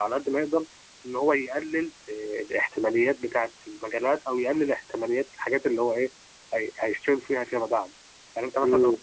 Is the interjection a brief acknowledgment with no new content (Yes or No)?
Yes